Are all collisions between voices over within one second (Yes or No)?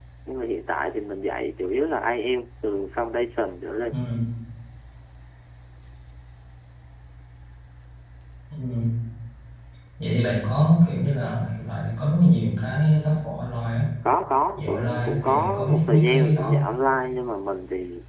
No